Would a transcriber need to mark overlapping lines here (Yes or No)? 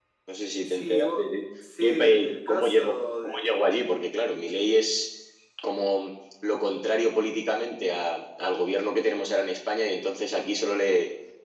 Yes